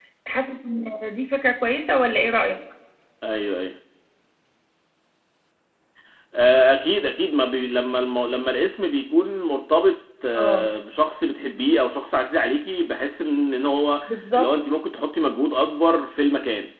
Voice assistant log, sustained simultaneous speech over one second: none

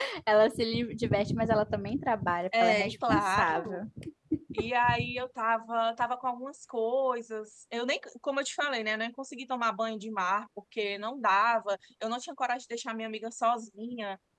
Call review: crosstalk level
present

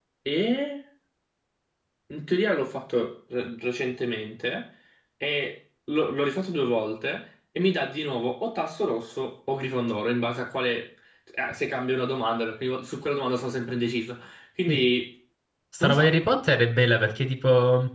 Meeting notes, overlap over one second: none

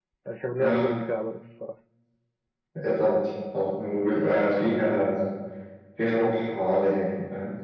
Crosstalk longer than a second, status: none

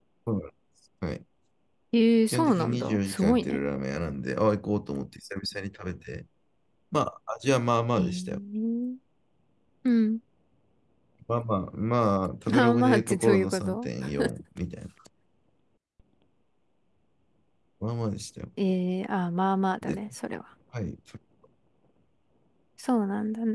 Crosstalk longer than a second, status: present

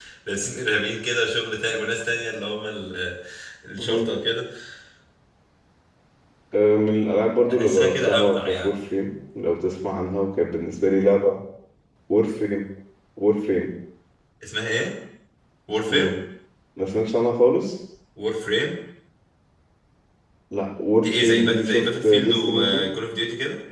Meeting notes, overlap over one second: present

